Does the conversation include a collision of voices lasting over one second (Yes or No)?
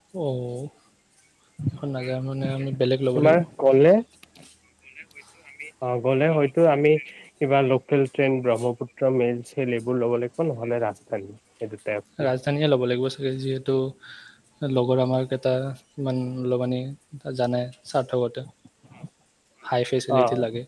No